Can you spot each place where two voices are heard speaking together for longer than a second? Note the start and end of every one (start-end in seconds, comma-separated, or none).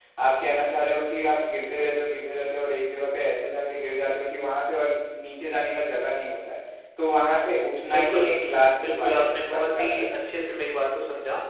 8.8-10.1